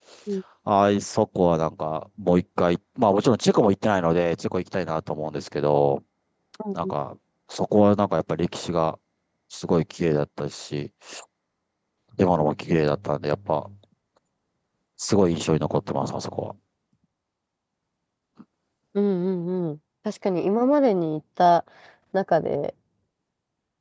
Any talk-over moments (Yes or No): No